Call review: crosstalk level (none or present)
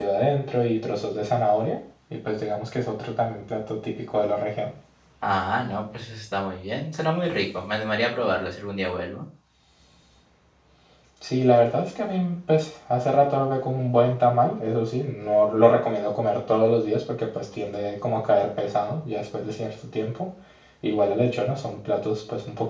none